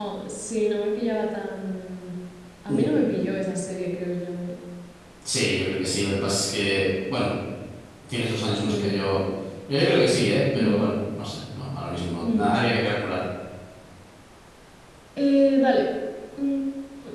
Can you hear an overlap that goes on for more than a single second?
No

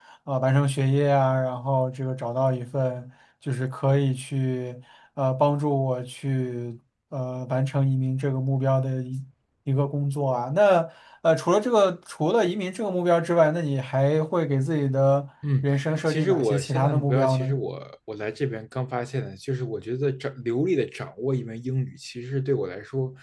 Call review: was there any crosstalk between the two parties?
Yes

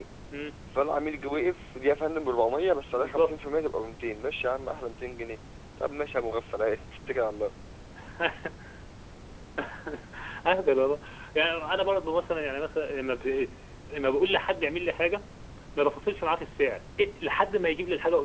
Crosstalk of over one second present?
No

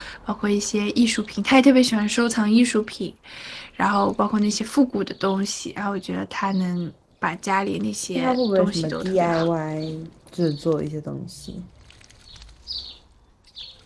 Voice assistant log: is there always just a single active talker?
No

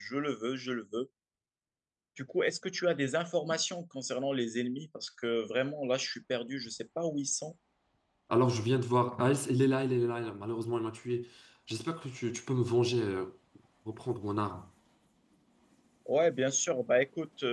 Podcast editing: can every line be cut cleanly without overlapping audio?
Yes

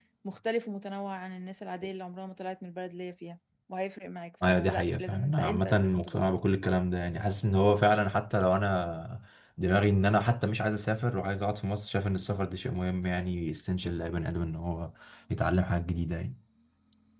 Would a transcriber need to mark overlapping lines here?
Yes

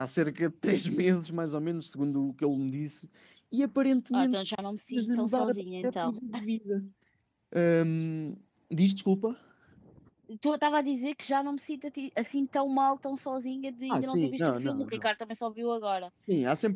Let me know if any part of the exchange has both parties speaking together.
Yes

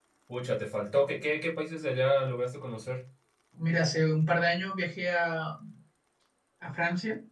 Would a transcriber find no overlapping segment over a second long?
Yes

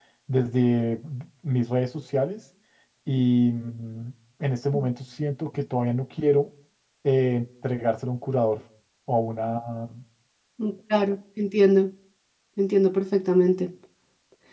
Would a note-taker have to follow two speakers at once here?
No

